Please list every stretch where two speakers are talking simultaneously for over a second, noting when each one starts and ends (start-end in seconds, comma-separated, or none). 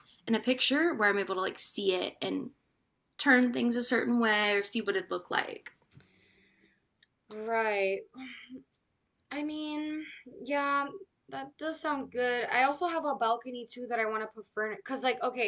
none